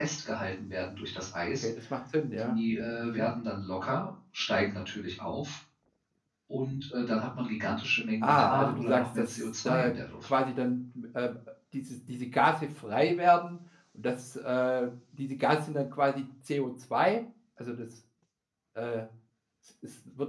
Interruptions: present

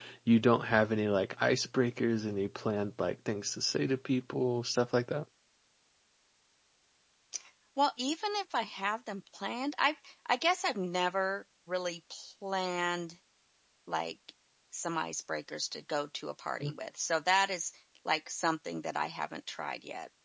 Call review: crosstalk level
none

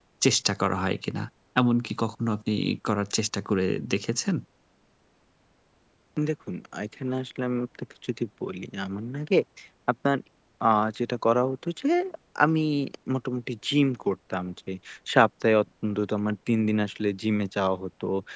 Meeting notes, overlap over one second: none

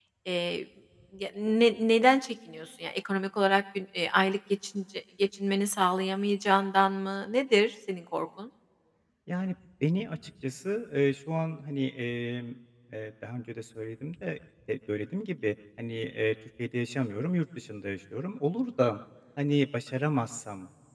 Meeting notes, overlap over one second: none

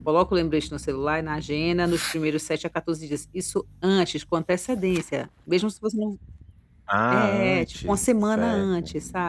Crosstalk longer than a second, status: present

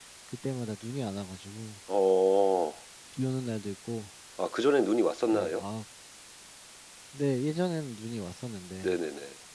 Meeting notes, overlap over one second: none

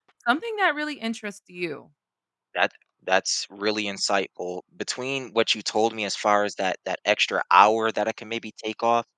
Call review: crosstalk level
none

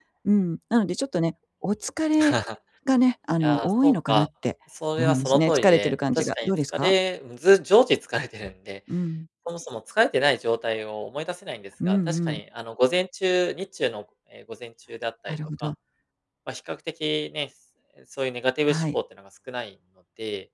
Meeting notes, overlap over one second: present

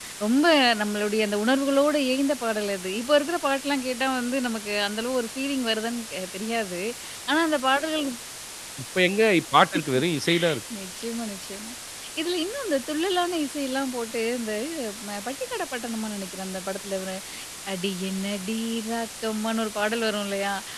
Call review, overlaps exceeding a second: none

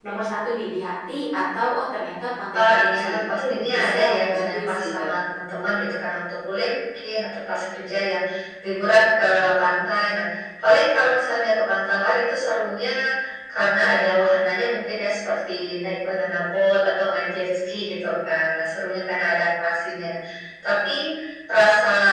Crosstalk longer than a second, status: present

